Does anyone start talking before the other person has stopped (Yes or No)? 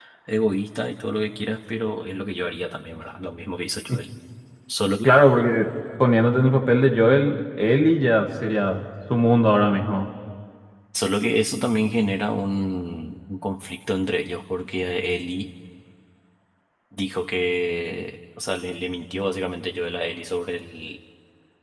No